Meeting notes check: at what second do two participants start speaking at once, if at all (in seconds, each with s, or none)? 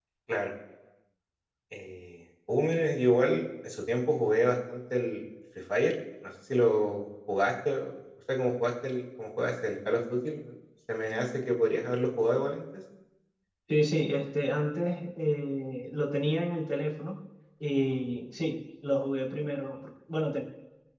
none